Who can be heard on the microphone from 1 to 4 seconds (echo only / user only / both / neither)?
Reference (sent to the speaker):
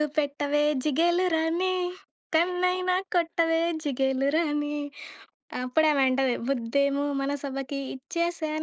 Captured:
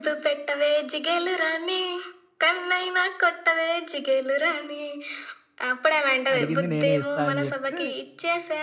echo only